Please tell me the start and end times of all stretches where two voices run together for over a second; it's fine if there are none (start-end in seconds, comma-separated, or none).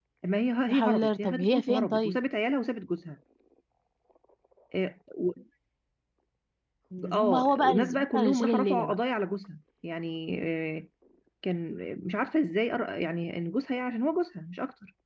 0.7-2.2, 7.1-8.9